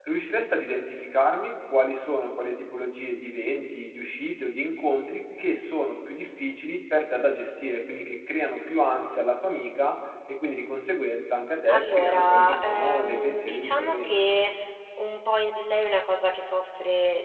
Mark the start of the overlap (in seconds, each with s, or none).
11.6 s